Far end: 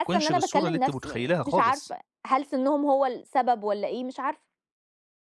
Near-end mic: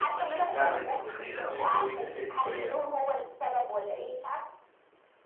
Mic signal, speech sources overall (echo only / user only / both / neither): both